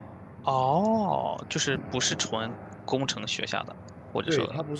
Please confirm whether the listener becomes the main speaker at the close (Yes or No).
Yes